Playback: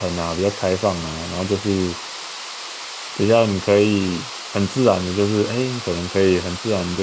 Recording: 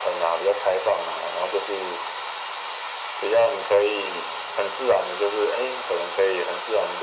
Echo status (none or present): present